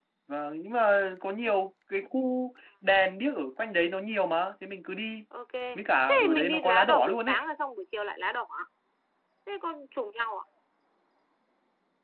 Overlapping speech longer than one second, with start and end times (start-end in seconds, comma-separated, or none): 6.1-7.4